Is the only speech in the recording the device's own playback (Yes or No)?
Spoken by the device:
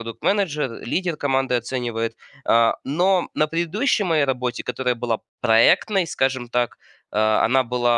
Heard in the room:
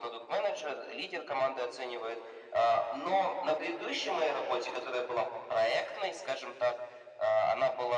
Yes